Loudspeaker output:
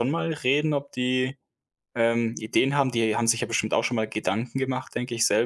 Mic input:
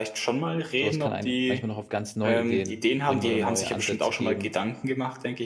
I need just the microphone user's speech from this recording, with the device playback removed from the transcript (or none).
so was kann einen manchmal noch auf ganz neue Ideen bringen oder neue Ansätze geben,